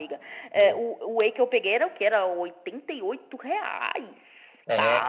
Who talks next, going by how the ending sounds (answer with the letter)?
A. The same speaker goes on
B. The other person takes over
B